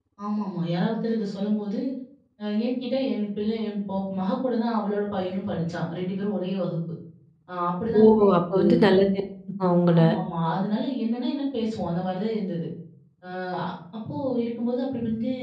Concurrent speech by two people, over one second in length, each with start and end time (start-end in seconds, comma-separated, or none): none